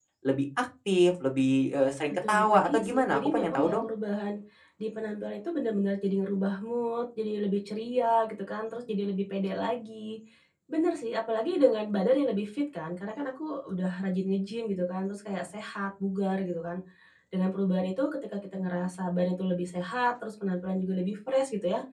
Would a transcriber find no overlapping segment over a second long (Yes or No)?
No